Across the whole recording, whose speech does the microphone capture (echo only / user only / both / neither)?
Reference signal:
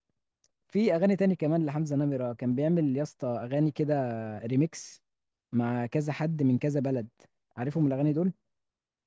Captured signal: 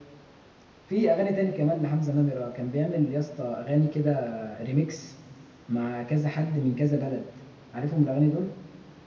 echo only